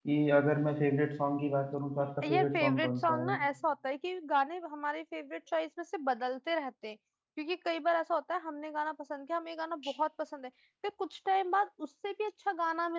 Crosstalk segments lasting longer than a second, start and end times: 2.0-3.4

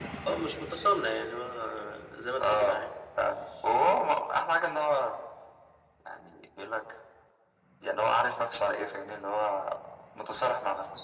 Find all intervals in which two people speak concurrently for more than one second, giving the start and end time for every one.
none

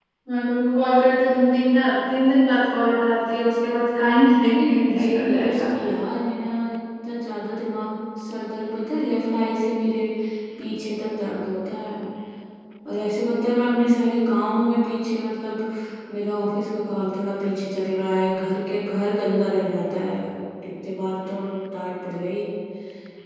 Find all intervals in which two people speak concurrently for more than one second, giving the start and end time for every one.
4.5-5.7

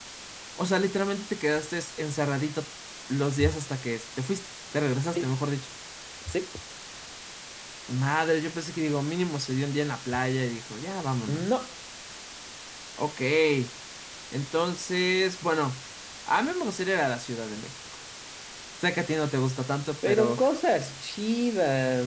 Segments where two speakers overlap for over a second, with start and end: none

